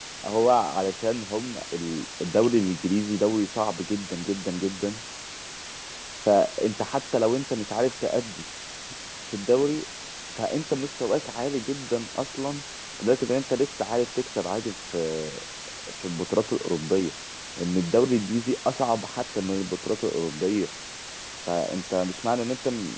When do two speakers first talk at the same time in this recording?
none

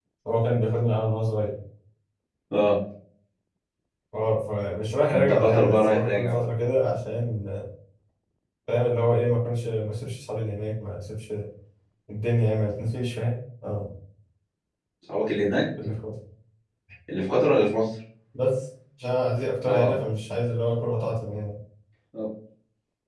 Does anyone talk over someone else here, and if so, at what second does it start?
5.1 s

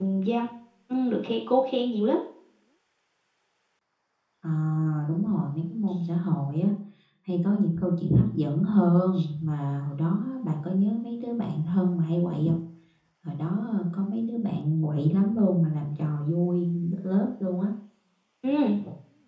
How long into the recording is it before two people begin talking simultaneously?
none

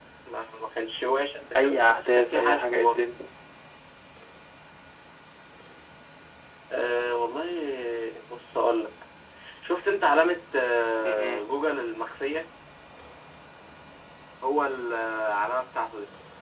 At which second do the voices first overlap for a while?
1.6 s

